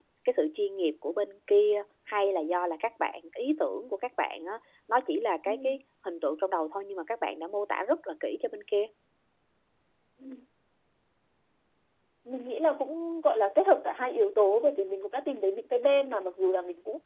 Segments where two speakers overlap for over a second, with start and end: none

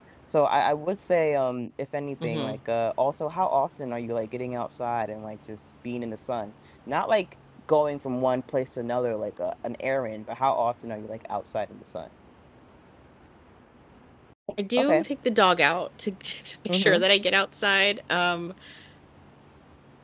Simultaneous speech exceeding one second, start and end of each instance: none

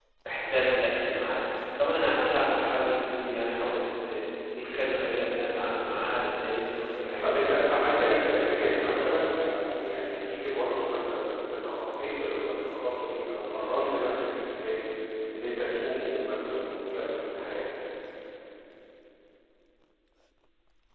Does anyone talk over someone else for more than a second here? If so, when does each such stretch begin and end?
7.2-9.3

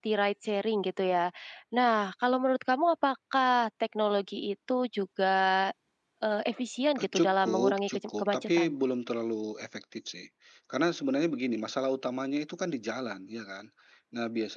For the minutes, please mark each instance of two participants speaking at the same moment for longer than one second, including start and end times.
7.0-8.8

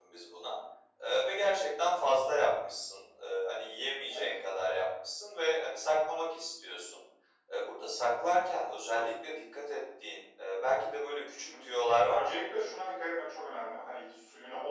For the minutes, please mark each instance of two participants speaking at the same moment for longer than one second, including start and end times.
none

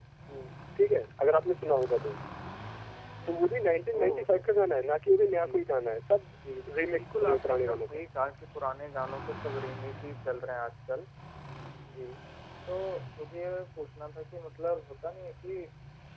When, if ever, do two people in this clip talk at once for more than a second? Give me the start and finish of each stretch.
6.4-8.0

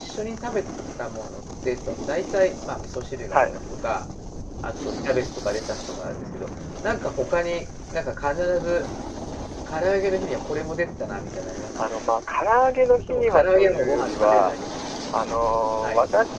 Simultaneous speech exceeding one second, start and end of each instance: 13.0-14.5

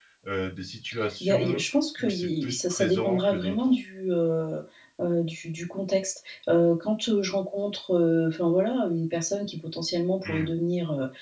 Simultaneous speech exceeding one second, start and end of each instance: 2.0-3.7

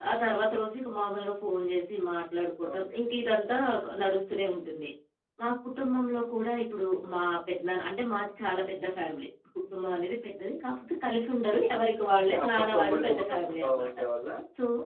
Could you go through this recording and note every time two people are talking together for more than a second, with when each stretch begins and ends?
11.8-13.9

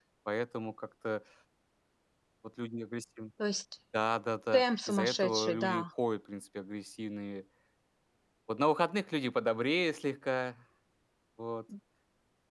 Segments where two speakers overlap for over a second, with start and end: 4.5-5.8

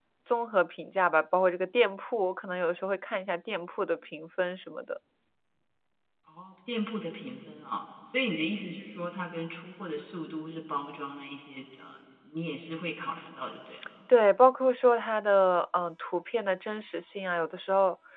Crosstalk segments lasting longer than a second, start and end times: none

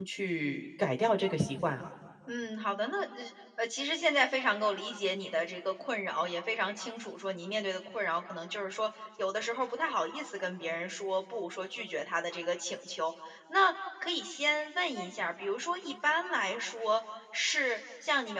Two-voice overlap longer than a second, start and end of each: none

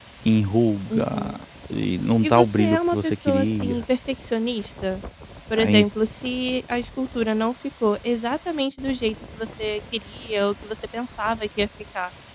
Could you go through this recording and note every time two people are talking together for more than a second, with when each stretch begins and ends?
2.2-3.8

